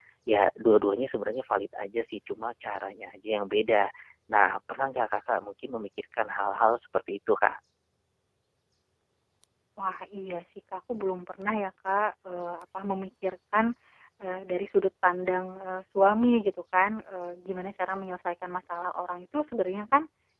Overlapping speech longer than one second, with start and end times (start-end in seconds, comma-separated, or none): none